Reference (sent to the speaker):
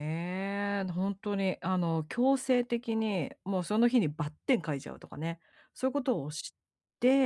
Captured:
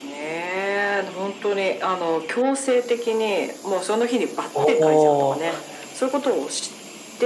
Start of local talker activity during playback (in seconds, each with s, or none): 4.5 s